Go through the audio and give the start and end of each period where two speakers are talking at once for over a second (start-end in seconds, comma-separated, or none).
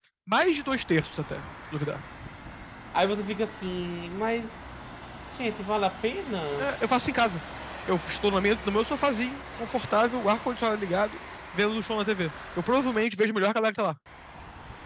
none